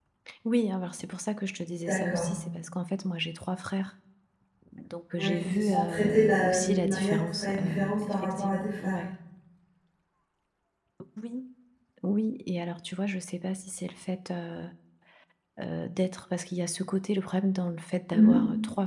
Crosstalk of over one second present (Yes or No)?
Yes